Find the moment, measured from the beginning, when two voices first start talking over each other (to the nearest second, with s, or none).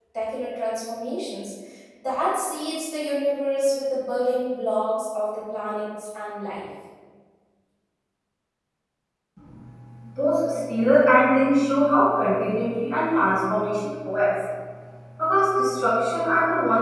none